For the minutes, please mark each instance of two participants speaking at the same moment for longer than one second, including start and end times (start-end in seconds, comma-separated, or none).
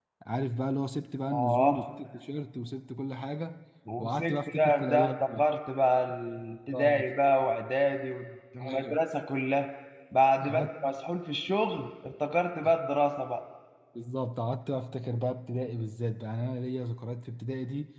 4.0-5.5